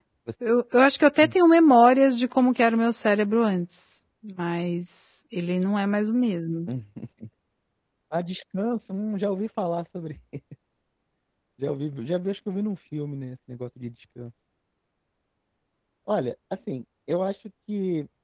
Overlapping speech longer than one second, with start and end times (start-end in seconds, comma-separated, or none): none